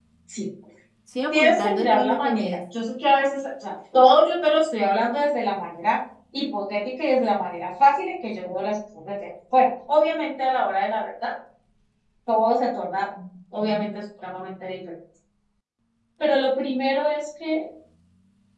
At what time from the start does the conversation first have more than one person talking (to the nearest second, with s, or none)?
1 s